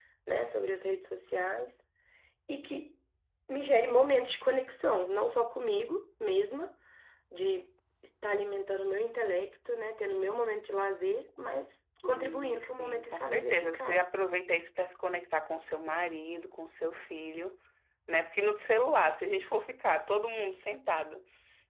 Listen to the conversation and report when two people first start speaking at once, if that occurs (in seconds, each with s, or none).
12.0 s